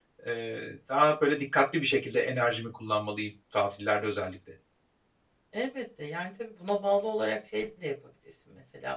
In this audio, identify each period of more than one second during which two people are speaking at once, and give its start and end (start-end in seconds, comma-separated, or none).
none